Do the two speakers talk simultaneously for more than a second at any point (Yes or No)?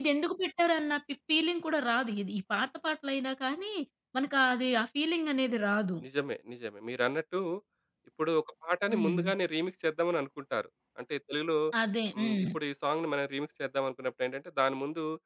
No